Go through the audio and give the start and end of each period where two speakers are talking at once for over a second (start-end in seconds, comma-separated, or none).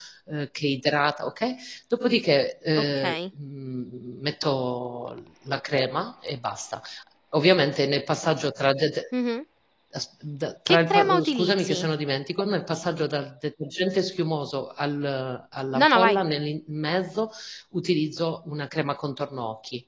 10.7-11.9